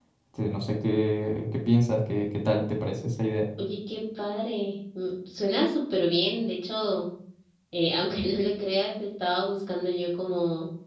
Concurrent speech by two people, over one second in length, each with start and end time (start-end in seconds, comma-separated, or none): none